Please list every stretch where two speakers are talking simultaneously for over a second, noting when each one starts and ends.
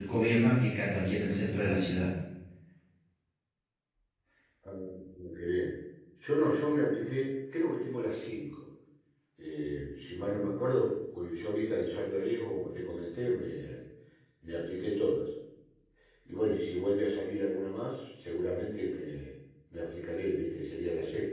none

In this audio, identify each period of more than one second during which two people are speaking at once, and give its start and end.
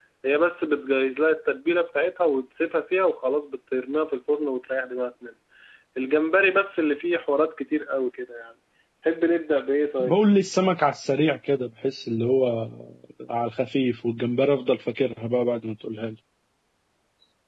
none

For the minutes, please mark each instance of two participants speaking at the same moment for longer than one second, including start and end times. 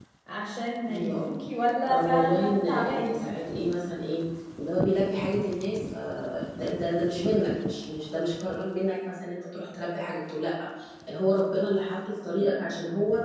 1.9-3.2

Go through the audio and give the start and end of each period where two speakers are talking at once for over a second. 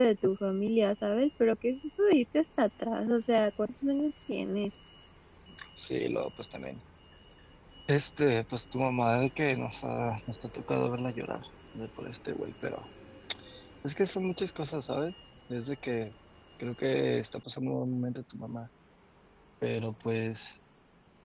none

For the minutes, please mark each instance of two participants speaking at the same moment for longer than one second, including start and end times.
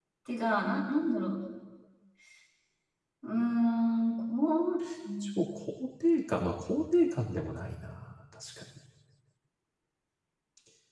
none

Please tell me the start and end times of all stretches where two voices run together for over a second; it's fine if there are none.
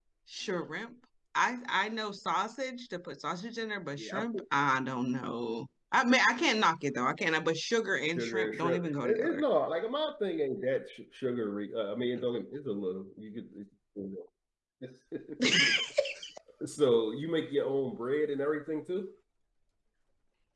8.2-9.4

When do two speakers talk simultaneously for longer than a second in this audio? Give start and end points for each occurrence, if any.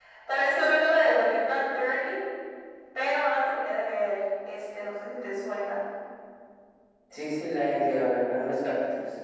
none

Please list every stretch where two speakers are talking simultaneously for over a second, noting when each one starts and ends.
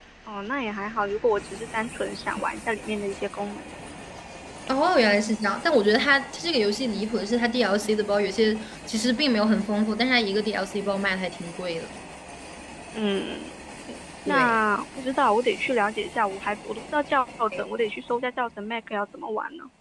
none

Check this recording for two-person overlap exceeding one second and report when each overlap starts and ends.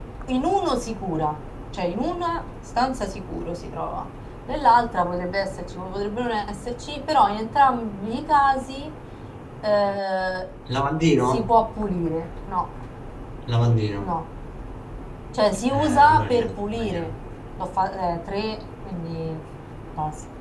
15.7-17.1

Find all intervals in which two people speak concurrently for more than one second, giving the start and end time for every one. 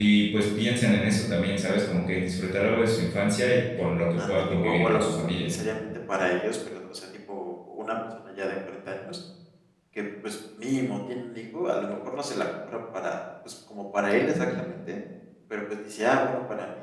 4.2-5.5

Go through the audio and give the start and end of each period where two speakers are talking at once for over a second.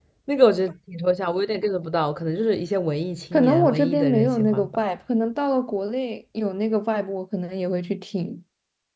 3.3-4.8

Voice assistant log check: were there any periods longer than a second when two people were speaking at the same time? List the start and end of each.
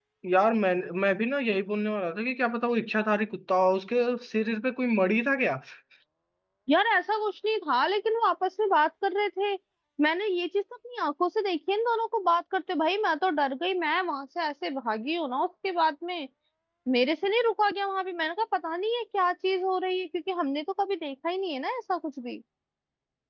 none

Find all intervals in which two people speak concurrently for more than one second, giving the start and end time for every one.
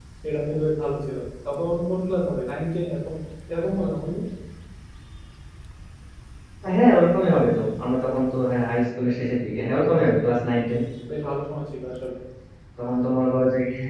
none

